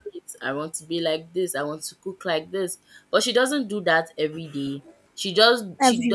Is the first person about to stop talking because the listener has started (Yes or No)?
No